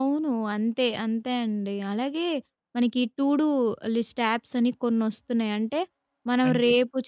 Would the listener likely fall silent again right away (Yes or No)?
Yes